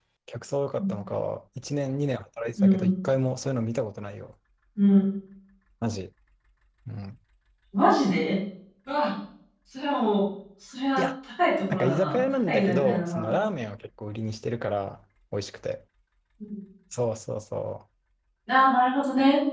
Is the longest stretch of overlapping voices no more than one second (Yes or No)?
No